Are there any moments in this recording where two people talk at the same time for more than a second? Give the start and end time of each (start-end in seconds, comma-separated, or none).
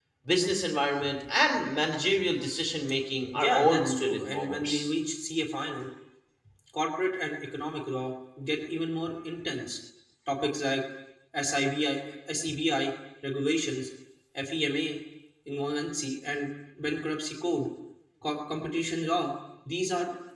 3.4-4.9